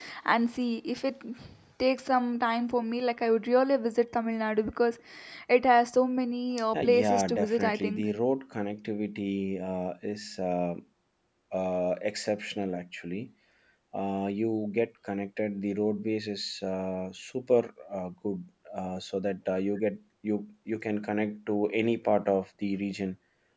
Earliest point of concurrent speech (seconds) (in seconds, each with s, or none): 6.7 s